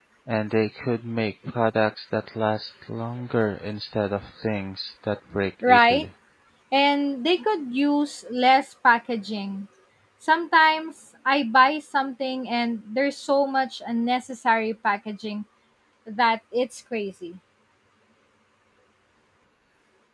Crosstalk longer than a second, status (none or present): none